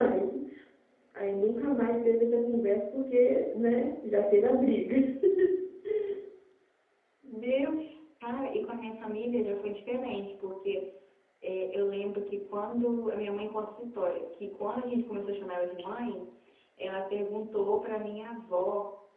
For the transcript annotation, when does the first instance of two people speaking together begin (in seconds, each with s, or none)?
none